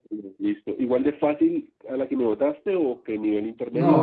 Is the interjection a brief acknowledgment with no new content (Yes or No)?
No